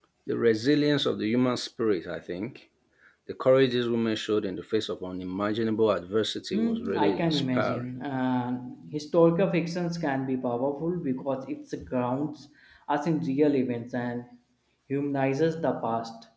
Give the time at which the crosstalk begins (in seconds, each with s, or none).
6.5 s